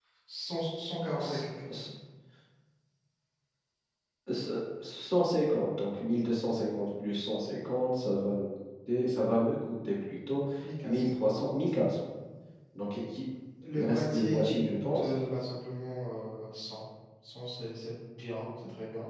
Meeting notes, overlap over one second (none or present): present